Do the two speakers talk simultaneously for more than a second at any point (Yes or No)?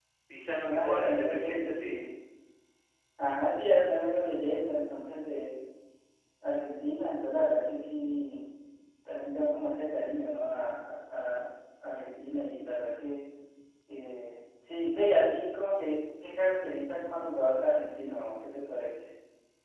Yes